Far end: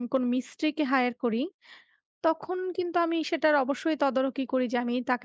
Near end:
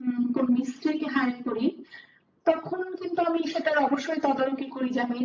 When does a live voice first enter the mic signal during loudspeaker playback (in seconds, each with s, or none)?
none